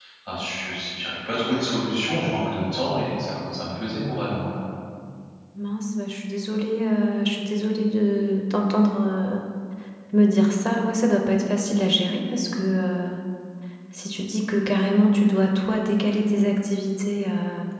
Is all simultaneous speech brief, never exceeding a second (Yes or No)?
Yes